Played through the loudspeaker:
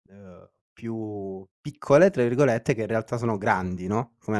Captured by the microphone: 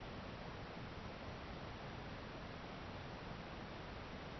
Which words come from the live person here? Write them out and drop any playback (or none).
none